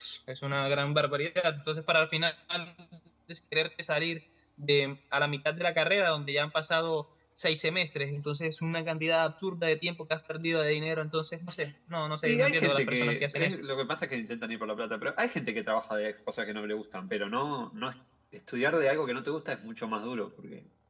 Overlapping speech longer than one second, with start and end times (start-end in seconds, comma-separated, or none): 12.2-13.6